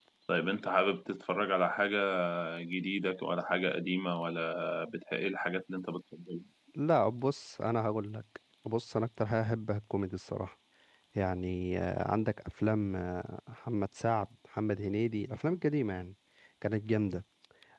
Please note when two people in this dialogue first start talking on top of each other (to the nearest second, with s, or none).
none